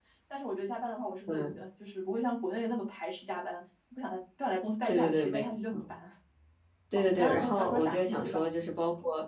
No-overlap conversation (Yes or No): No